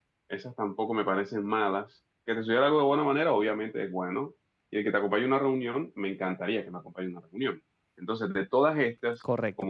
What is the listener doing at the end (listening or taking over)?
taking over